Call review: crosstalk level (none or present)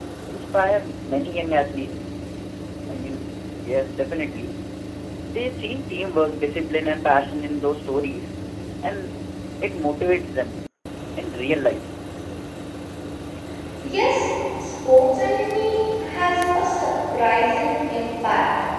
none